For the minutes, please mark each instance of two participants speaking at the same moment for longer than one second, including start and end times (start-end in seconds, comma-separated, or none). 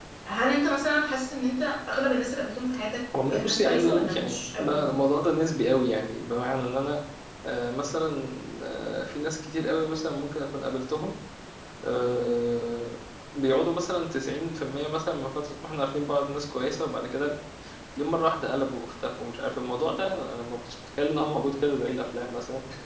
3.3-4.8